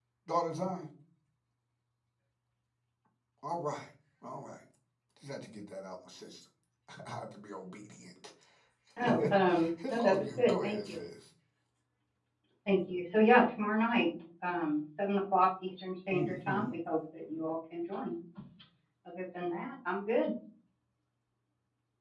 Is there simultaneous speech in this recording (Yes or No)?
Yes